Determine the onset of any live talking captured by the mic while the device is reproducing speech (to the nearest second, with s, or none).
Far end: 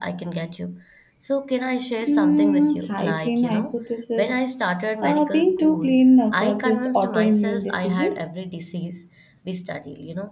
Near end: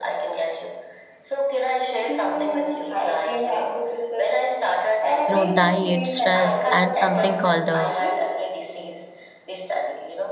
5 s